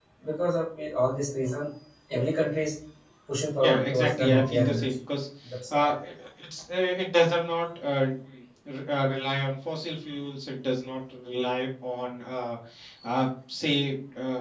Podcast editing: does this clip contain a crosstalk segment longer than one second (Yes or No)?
Yes